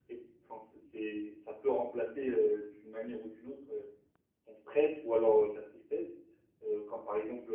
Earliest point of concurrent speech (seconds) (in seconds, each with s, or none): none